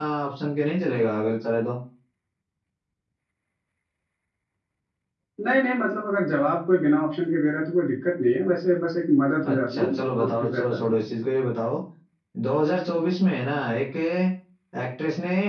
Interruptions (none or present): present